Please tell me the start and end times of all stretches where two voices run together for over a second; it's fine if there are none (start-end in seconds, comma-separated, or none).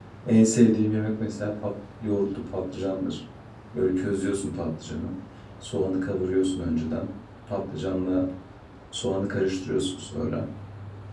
none